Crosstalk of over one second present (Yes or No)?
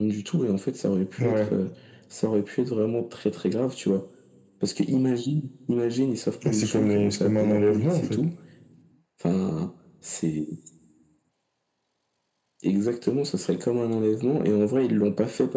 Yes